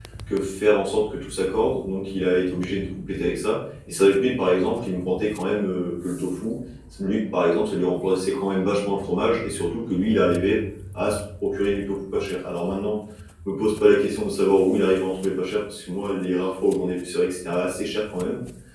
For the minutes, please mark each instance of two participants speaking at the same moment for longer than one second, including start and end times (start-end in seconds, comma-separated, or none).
none